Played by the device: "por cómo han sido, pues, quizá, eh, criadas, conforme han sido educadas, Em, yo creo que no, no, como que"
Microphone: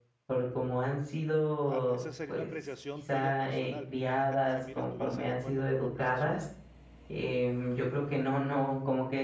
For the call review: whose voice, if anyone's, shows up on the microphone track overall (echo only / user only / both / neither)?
both